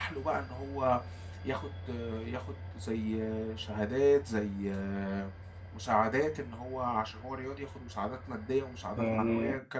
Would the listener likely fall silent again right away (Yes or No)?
Yes